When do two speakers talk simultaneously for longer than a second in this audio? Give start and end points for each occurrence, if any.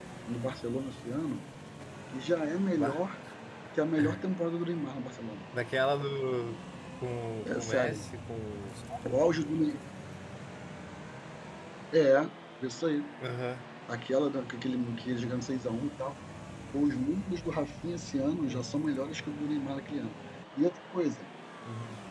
none

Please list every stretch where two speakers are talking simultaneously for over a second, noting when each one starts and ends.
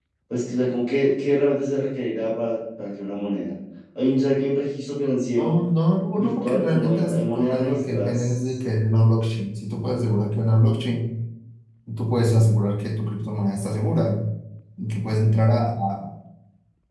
6.2-8.5

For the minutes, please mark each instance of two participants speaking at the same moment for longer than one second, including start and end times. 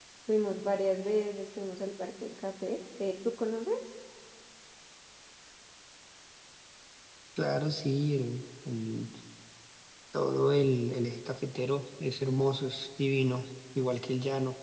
none

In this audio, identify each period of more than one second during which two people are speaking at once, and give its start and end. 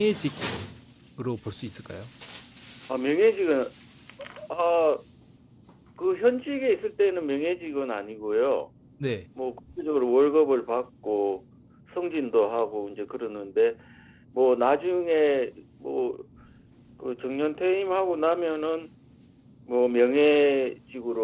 none

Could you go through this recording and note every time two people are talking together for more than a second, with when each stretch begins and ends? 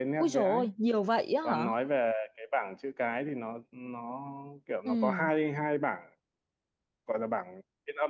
none

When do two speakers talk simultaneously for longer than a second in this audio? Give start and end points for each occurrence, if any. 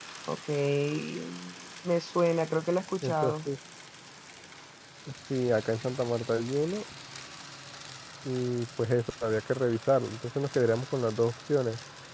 none

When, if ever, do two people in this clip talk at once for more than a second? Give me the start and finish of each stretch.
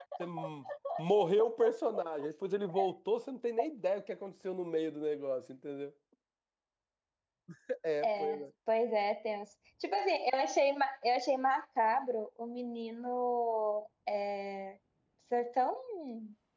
none

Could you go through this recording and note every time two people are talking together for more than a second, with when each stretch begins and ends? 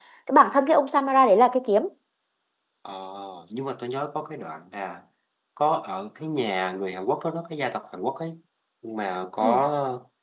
none

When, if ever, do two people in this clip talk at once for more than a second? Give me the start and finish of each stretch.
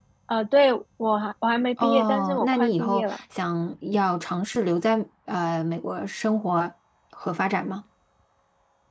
1.8-3.2

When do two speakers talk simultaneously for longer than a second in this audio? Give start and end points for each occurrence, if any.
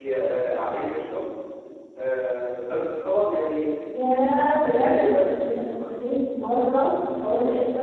none

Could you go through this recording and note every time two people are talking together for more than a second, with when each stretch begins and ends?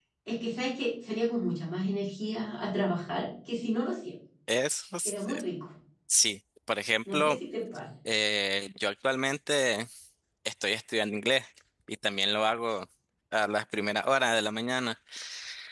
none

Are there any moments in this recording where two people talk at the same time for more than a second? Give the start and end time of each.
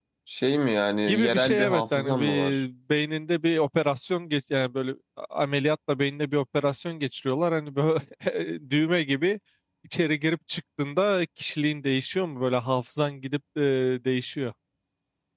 1.1-2.6

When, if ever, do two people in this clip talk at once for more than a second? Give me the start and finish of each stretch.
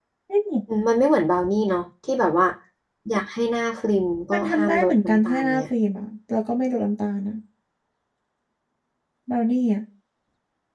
4.3-5.6

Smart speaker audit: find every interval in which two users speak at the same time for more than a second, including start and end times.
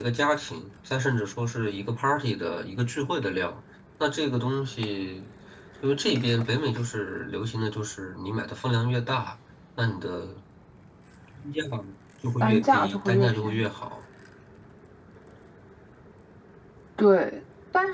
12.4-13.7

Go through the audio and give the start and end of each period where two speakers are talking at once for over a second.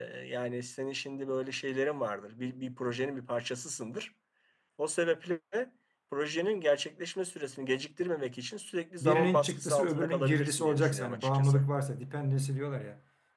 9.0-11.6

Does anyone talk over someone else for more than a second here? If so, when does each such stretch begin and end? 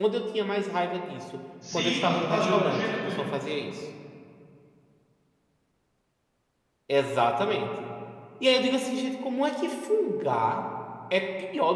1.7-3.3

